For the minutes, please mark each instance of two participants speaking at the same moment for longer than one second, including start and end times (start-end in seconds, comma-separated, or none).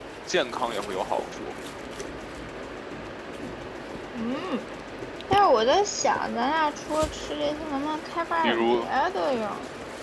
none